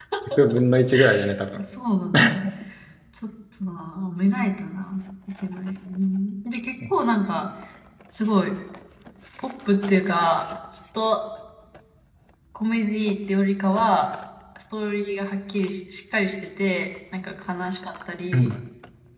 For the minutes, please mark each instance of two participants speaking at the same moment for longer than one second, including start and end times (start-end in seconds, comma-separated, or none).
none